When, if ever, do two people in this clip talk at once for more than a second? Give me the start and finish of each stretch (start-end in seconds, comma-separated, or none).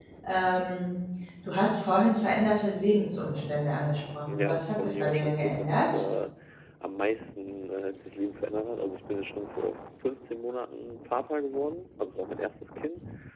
4.3-5.9